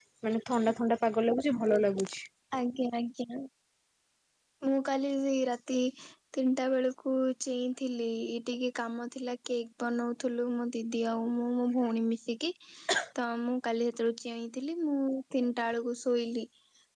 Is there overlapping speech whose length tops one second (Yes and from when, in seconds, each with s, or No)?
No